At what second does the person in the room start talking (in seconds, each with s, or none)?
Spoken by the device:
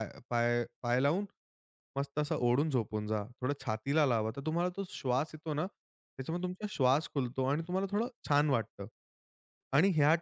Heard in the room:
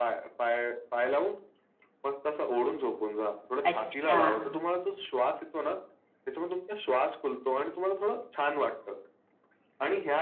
3.7 s